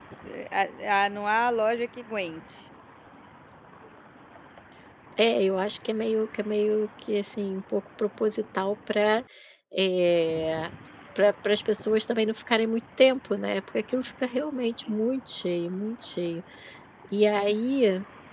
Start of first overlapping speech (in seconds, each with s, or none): none